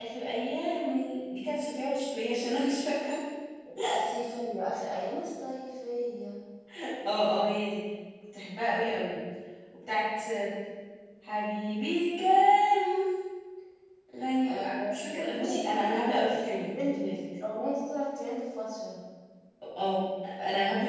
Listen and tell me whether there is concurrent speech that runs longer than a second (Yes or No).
Yes